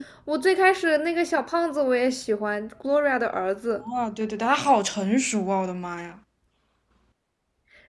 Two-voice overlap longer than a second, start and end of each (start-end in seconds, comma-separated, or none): none